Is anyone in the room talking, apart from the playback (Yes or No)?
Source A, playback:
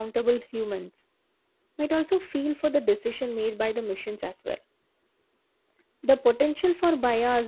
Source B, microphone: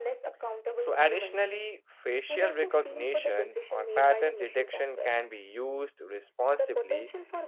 Yes